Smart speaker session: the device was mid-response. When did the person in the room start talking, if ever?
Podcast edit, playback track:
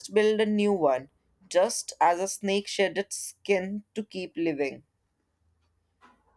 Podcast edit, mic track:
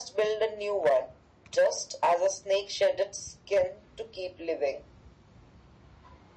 none

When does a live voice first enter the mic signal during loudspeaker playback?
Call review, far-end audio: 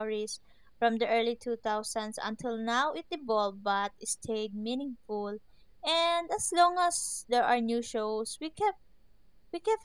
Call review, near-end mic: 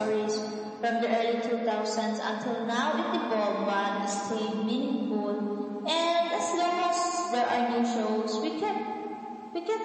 none

